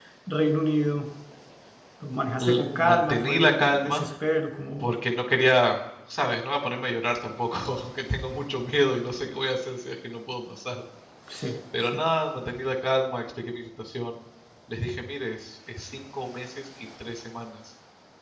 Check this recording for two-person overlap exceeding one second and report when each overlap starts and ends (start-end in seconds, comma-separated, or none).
2.4-4.0